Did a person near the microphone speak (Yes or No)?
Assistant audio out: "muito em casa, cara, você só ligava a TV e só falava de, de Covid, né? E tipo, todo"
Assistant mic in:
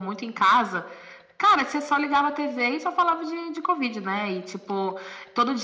No